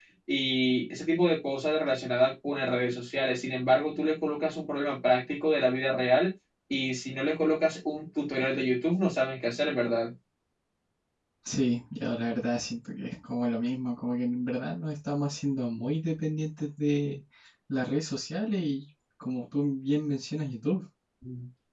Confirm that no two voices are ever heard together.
Yes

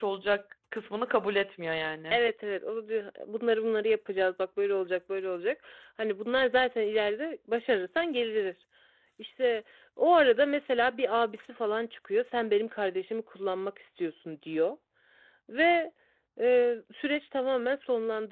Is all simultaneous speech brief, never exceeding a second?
Yes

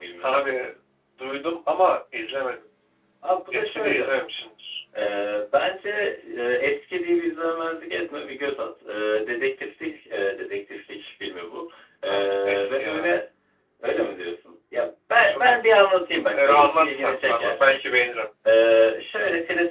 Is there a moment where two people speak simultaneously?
Yes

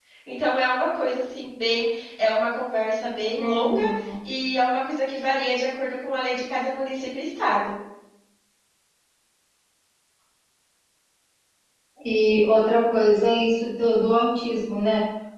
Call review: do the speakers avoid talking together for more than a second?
Yes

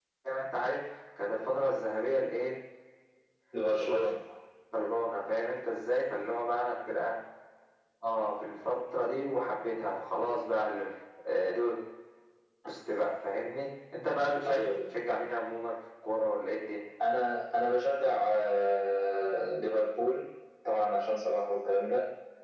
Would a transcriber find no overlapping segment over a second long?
Yes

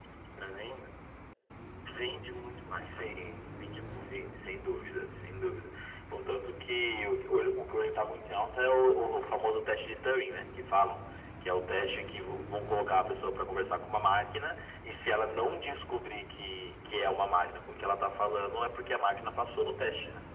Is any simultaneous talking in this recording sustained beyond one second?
No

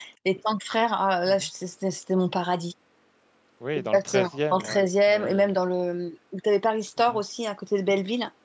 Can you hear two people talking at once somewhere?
Yes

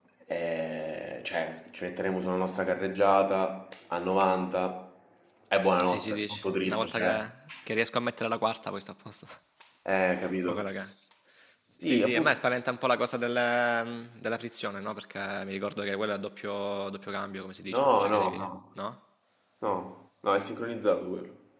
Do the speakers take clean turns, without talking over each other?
No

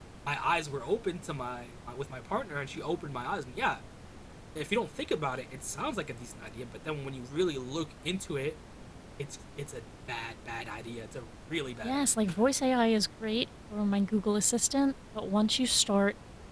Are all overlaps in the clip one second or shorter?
Yes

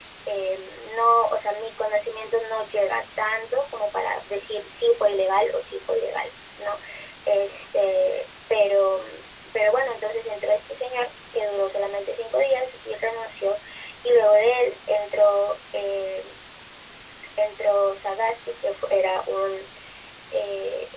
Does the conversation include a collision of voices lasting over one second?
No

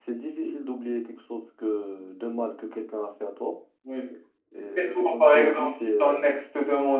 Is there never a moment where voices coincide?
No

